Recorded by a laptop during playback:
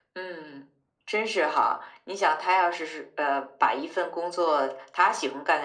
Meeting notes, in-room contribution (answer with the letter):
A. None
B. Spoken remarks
A